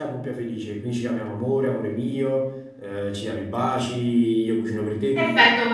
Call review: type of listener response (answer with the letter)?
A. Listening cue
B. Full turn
B